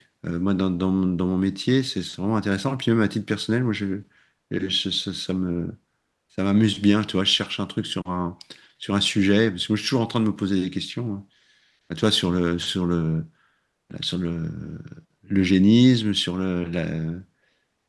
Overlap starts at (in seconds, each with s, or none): none